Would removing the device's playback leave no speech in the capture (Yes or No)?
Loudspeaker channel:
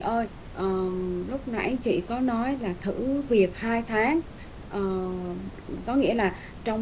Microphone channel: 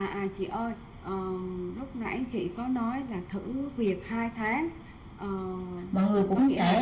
No